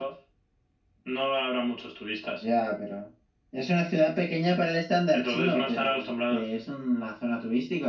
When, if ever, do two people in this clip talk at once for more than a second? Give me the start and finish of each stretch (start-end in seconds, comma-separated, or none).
5.1-6.5